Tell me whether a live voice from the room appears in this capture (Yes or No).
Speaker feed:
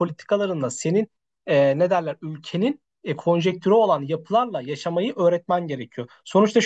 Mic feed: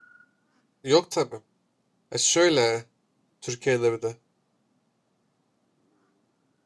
Yes